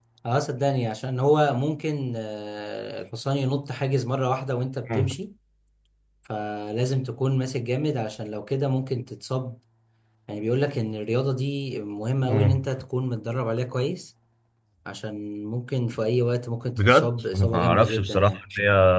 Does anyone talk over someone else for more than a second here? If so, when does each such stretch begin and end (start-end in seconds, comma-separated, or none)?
16.8-18.4